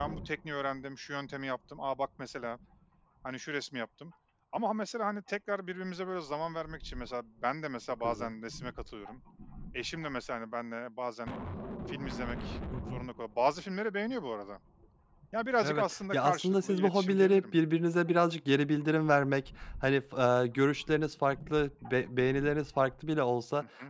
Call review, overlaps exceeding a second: present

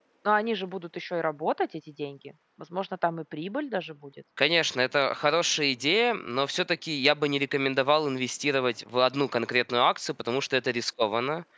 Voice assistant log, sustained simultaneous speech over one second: none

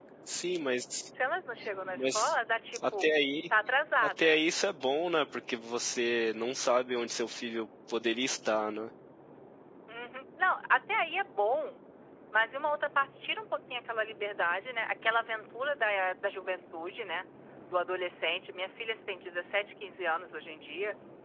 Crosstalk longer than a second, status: none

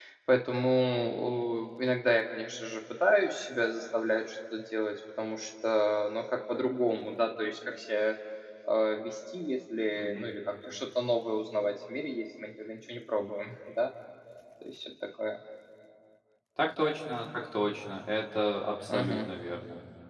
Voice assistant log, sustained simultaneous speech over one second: none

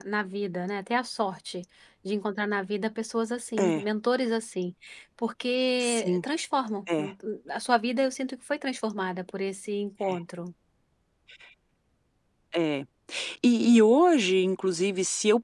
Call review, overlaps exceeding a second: none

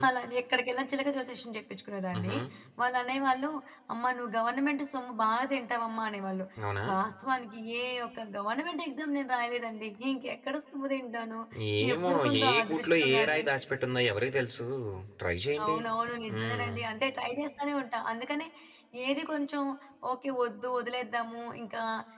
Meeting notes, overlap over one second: present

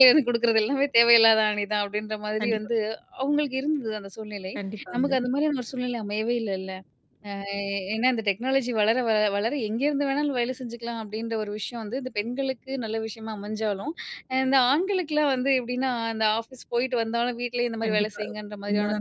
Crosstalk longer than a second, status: none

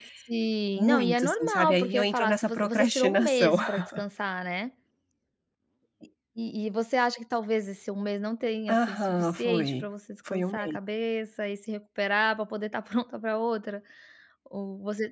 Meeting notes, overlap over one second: present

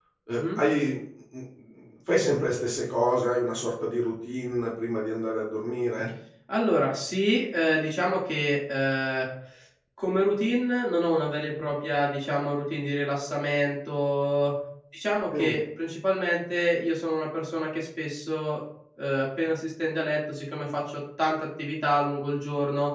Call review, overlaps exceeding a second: none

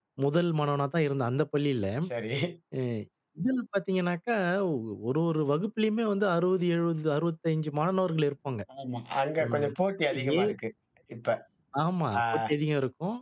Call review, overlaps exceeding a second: none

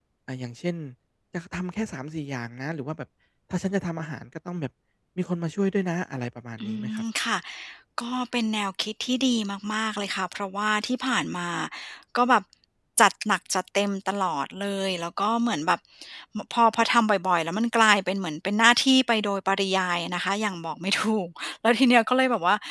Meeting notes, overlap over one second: none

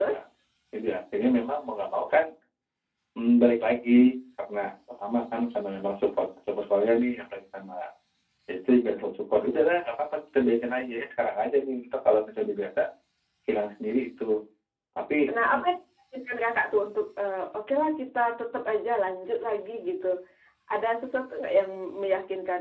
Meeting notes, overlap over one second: none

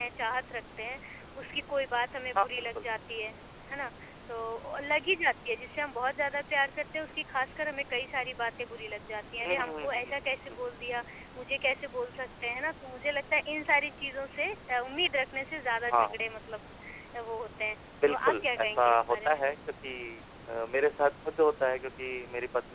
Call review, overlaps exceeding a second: present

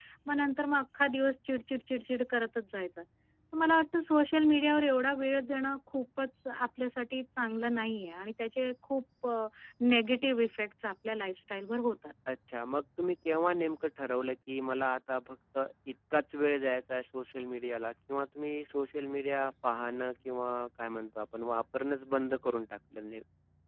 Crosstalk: none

